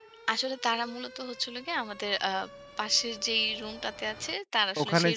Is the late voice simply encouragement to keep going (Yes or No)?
Yes